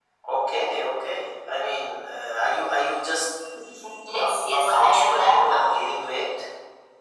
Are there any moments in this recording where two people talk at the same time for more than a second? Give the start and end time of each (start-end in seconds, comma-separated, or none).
4.2-5.8